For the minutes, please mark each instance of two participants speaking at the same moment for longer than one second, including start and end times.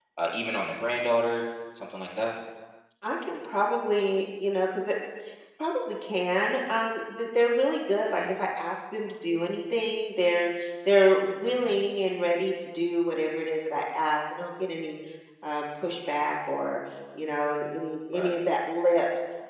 none

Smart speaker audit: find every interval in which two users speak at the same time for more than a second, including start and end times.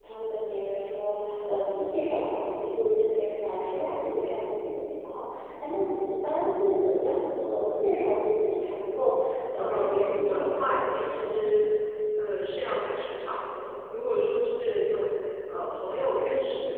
9.5-11.5

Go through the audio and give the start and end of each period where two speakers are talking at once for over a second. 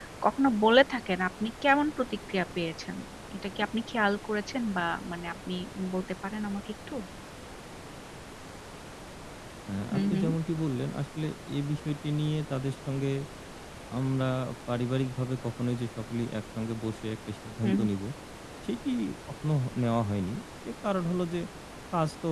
none

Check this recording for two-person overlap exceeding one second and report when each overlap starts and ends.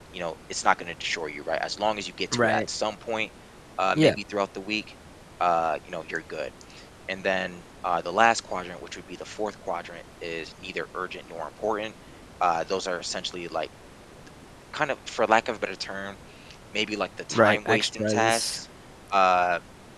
17.3-18.6

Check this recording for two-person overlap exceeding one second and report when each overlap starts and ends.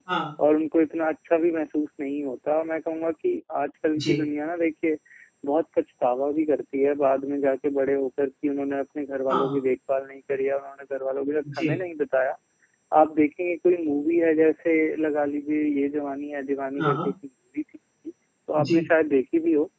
none

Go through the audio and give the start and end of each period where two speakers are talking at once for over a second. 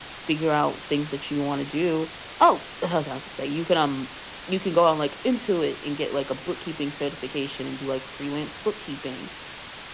none

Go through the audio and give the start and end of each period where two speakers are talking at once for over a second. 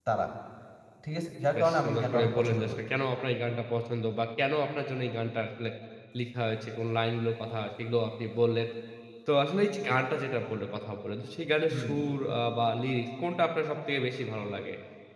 1.6-2.8

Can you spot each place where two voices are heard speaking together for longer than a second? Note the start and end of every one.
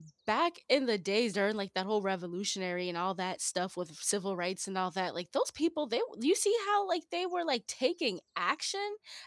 none

